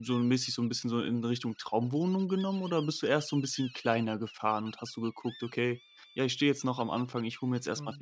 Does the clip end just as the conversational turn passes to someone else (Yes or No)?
No